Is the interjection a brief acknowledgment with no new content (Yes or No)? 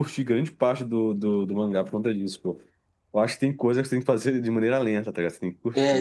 No